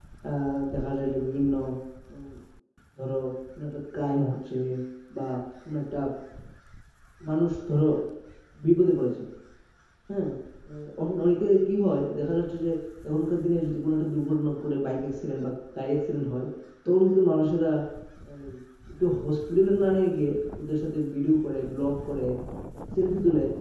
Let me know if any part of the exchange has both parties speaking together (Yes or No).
No